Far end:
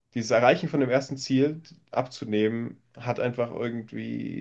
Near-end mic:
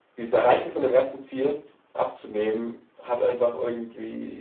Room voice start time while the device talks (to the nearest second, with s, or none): none